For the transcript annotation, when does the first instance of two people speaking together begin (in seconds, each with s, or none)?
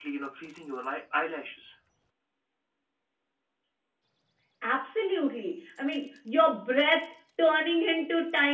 none